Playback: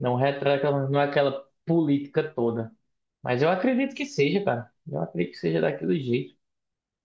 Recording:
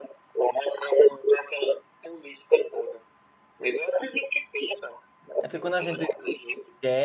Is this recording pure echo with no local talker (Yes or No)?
No